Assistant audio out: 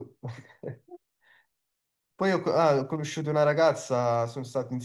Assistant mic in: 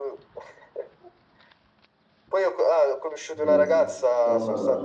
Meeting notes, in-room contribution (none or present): present